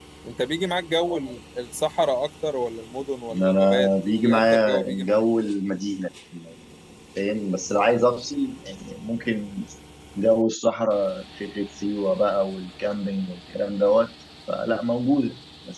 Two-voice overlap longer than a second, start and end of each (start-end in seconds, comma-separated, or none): 3.3-5.2